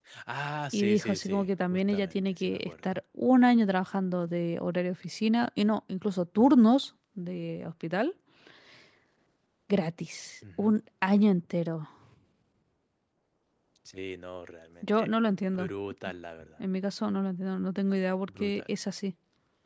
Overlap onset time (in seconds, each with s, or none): 0.7 s